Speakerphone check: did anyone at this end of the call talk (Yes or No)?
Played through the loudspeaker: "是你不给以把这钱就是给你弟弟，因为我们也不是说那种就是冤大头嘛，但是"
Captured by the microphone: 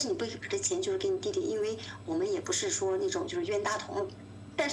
No